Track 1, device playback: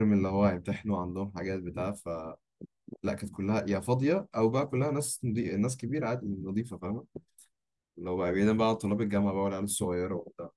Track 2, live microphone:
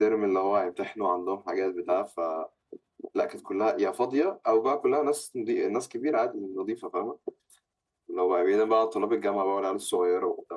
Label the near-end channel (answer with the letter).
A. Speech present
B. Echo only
B